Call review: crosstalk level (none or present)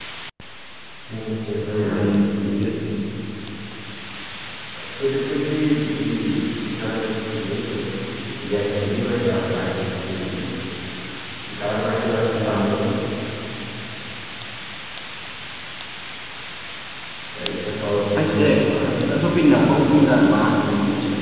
present